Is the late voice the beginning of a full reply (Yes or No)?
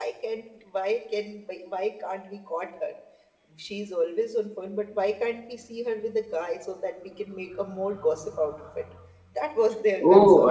Yes